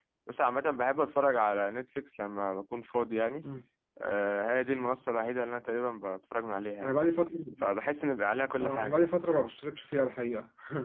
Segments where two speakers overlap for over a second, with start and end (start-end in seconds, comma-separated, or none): none